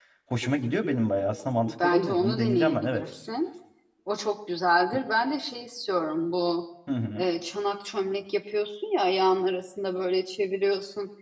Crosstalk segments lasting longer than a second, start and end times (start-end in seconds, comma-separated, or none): 1.7-3.0